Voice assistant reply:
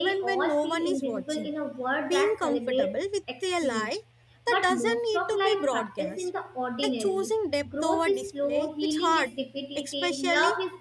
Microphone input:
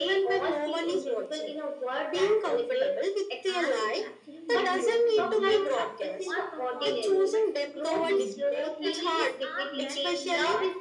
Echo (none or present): present